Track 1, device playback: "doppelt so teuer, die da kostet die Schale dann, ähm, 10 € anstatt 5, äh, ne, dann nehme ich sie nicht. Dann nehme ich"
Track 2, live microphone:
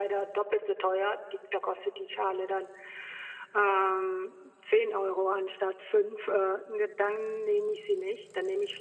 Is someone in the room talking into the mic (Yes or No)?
No